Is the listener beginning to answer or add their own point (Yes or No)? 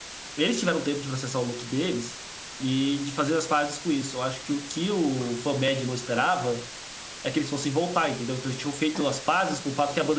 No